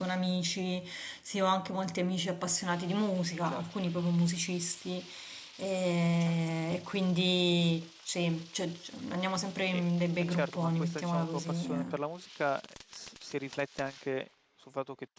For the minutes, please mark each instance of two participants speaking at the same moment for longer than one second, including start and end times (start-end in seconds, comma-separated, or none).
10.3-11.8